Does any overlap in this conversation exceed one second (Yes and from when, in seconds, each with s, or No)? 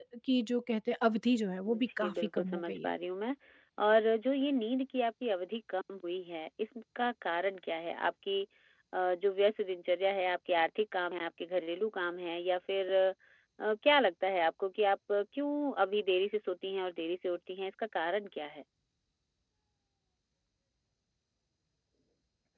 Yes, from 1.6 s